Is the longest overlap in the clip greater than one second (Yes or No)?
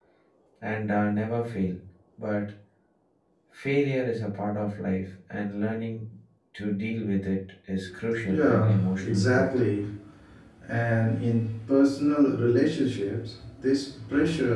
Yes